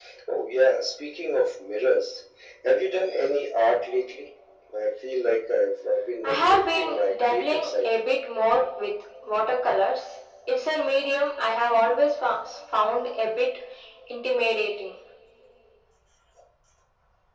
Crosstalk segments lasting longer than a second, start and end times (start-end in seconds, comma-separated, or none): 6.2-7.9